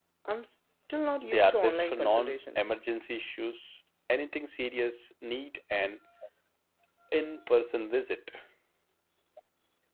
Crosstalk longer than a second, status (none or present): present